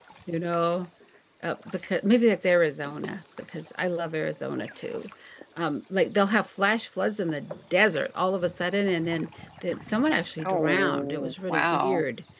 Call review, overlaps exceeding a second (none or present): present